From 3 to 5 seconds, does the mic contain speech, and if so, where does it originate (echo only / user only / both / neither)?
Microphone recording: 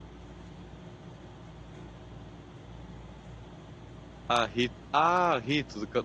user only